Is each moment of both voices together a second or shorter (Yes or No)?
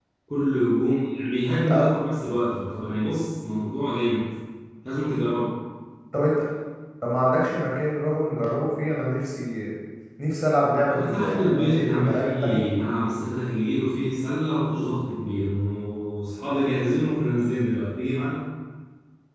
No